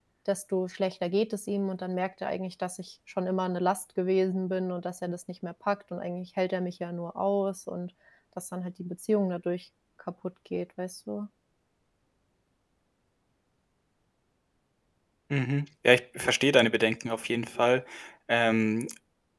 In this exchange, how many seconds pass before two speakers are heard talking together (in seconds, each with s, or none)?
none